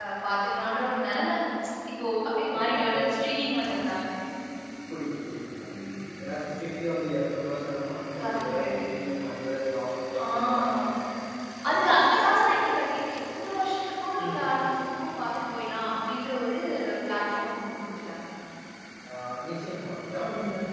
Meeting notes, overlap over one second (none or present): present